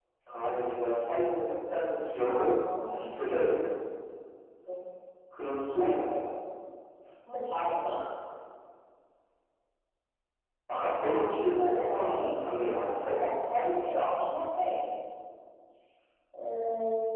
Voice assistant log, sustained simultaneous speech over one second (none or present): present